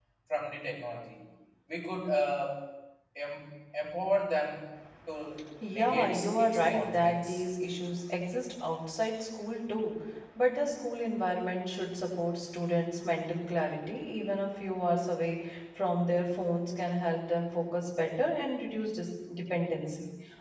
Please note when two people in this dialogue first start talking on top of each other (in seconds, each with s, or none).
5.7 s